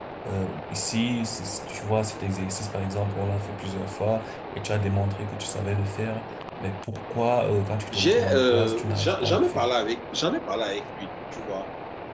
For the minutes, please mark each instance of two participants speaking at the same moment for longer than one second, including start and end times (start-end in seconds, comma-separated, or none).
7.9-9.7